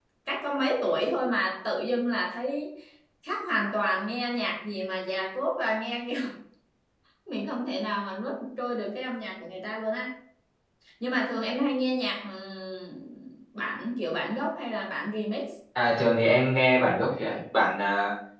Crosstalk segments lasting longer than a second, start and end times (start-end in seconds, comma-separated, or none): none